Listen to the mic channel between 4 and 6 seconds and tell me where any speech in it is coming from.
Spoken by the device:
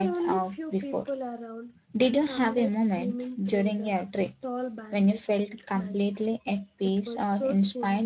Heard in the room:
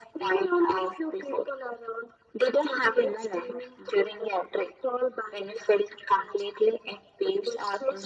echo only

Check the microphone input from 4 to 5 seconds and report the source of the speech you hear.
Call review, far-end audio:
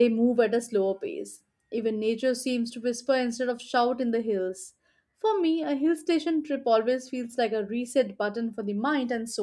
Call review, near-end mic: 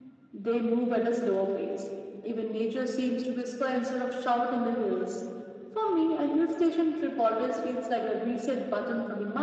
echo only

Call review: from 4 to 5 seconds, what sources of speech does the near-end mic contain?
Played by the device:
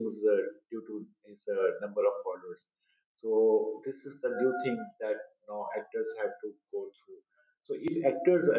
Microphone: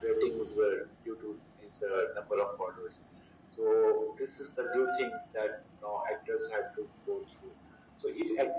echo only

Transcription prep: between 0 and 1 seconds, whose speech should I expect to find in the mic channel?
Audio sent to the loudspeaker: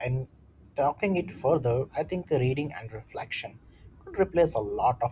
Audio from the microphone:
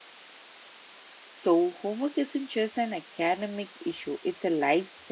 neither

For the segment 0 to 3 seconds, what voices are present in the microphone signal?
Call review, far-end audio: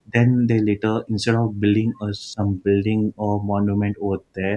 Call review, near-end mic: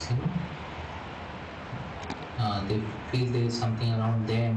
user only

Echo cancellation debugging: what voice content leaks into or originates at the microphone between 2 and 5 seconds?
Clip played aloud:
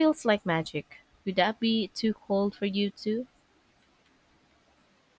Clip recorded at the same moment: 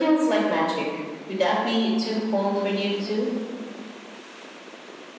echo only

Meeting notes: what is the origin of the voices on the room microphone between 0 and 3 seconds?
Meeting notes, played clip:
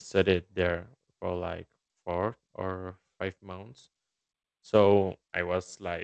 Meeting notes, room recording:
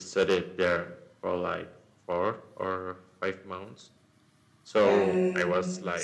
echo only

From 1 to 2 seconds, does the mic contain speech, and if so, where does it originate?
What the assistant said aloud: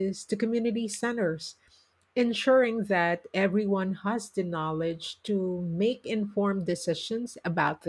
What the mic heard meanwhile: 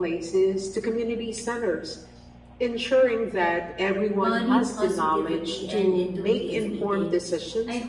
echo only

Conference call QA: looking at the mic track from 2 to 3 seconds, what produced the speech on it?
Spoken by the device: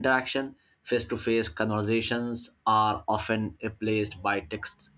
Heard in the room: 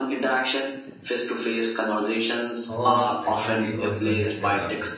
both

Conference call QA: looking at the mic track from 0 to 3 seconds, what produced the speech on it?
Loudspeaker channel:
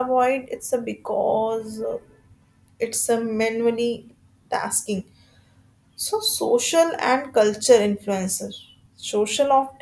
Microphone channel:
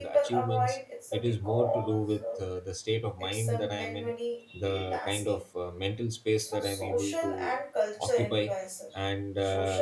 both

